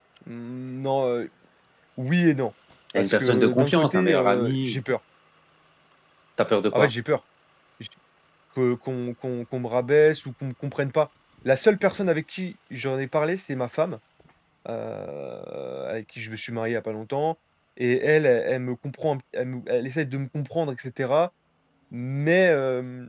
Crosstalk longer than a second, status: present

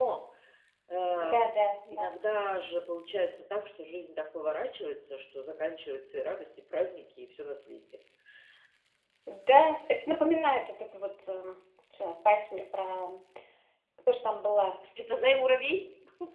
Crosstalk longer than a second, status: none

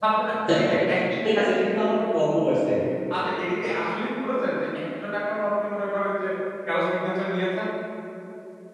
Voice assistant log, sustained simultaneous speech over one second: none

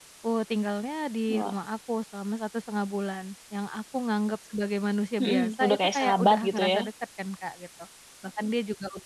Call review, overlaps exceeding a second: present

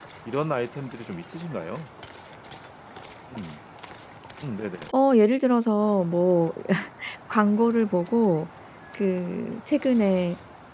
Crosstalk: none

